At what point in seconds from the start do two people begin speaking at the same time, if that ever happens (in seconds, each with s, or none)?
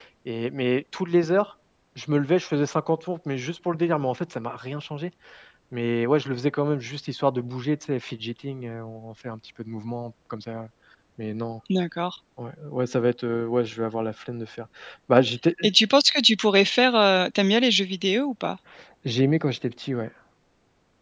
none